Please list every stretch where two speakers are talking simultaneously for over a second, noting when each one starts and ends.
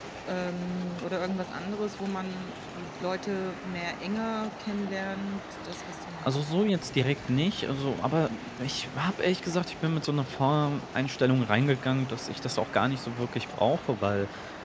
none

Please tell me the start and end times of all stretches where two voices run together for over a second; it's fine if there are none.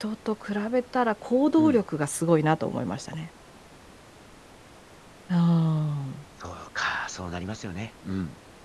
none

